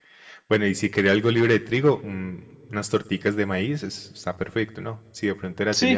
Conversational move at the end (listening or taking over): taking over